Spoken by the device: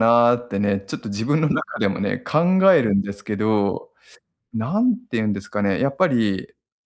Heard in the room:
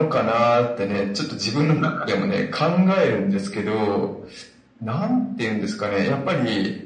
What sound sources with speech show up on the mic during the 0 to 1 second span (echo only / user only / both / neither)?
echo only